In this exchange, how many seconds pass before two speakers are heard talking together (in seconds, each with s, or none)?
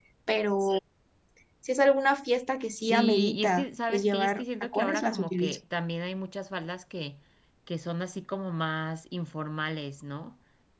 2.8 s